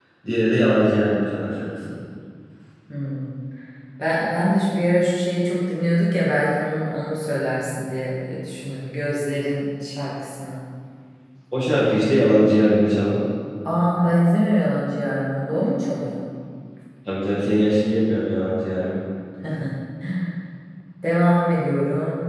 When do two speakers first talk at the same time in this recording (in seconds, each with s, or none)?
none